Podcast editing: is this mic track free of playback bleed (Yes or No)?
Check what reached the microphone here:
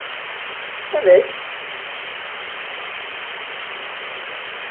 Yes